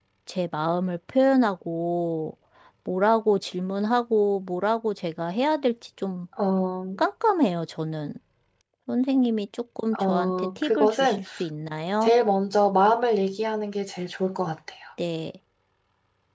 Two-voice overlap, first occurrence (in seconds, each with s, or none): 9.9 s